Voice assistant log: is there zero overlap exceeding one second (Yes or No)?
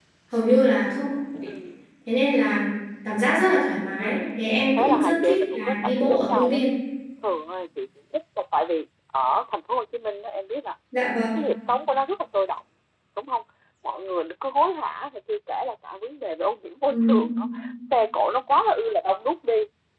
No